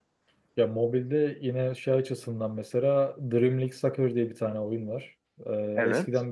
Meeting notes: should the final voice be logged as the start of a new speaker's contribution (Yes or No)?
No